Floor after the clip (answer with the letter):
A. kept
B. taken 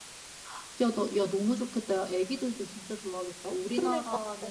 A